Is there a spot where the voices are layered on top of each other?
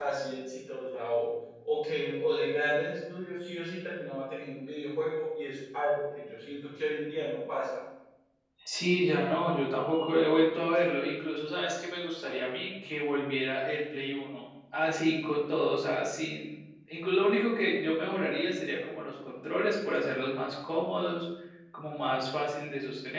No

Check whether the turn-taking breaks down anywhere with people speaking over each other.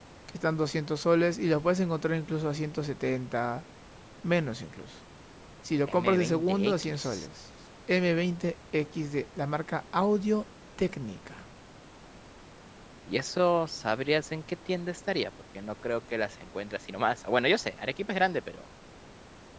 Yes, from 5.9 s

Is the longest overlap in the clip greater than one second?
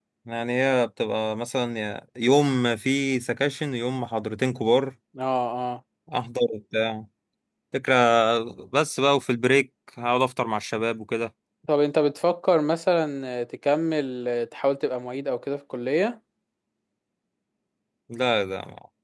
No

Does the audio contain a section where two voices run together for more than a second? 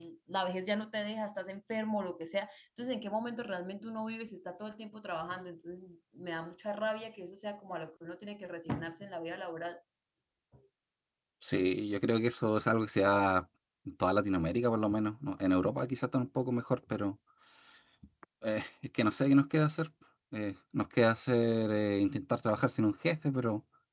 No

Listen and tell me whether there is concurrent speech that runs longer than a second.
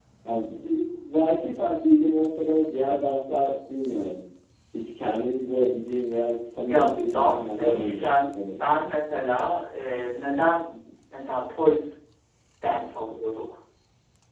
Yes, from 6.7 s

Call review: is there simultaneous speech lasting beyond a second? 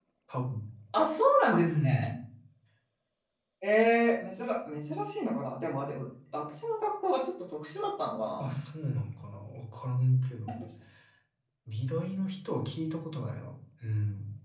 No

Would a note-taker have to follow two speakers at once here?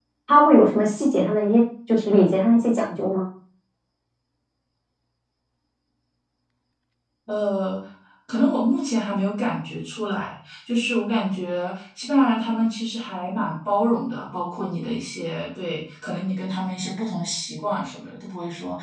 No

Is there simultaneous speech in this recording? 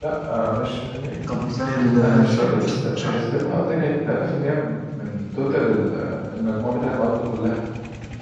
Yes, from 2.0 s

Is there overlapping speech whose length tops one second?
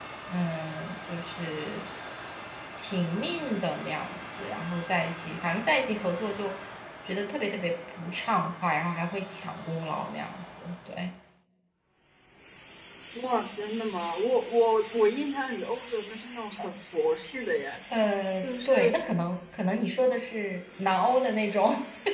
No

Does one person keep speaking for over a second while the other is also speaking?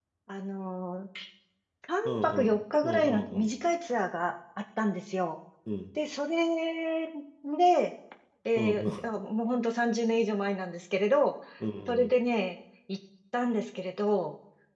Yes, from 2.0 s

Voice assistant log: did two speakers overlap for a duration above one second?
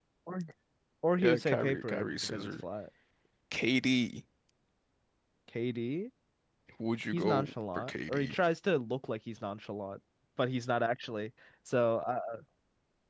Yes, from 1.2 s

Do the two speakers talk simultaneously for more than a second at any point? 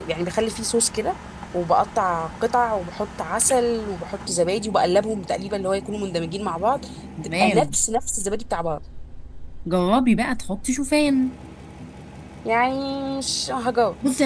No

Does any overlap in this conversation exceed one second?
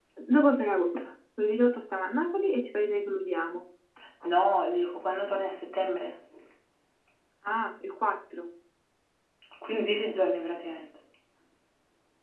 No

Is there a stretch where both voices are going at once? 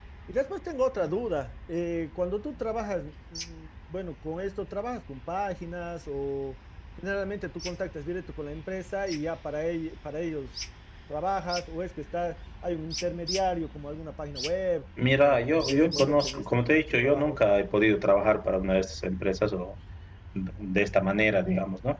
Yes, from 15.2 s

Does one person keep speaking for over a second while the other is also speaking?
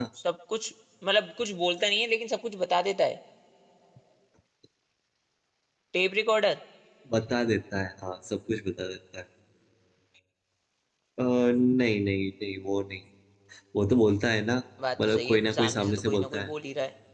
Yes, from 15.0 s

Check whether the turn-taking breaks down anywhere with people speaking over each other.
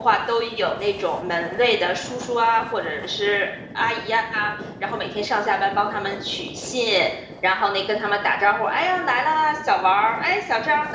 No

